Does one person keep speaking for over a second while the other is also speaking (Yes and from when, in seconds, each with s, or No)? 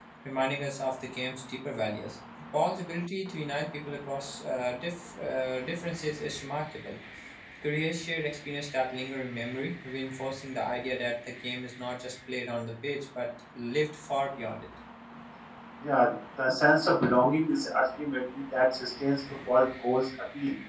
No